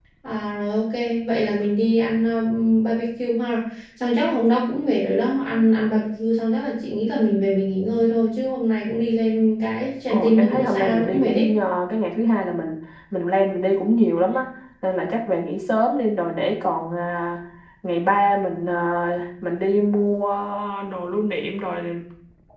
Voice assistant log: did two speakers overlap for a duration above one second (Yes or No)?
Yes